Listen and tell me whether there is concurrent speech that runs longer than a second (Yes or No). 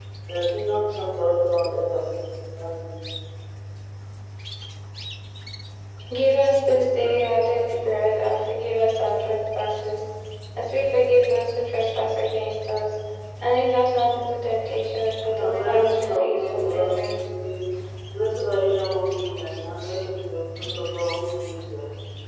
Yes